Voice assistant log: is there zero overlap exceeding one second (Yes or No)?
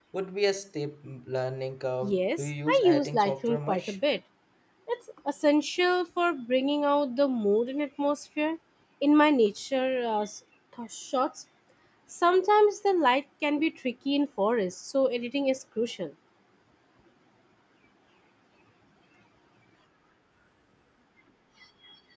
No